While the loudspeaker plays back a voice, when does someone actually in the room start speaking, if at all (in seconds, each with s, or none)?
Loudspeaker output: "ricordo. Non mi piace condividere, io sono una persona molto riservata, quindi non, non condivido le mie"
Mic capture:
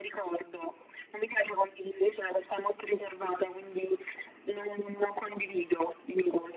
none